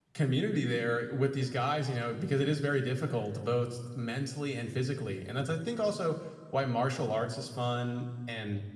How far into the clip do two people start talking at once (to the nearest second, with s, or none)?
none